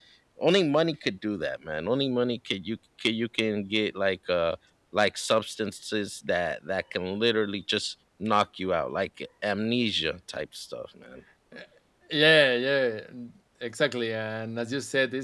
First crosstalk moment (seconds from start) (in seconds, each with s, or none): none